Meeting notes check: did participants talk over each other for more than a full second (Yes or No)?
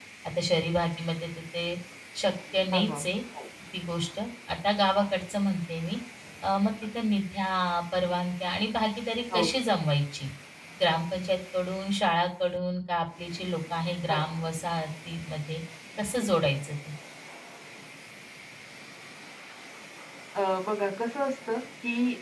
No